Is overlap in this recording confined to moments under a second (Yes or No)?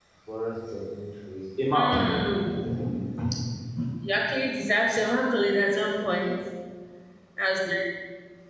Yes